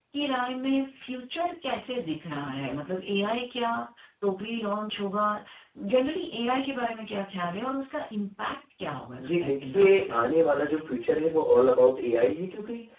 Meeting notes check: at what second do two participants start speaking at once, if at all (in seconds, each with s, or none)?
9.2 s